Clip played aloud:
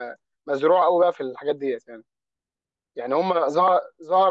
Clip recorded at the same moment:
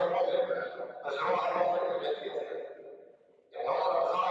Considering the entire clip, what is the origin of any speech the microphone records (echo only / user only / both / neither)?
echo only